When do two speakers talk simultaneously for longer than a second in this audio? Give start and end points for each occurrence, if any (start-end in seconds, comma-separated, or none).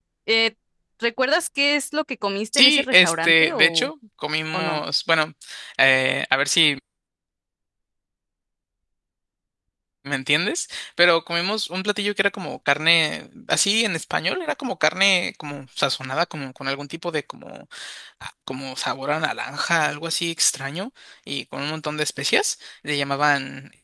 2.5-3.9